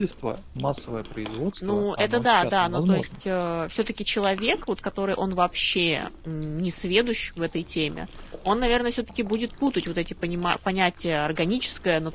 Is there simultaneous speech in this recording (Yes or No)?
Yes